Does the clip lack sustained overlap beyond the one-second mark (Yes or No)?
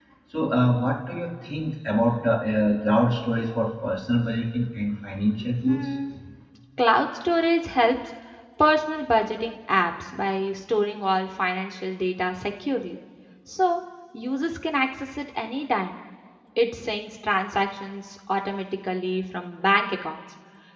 Yes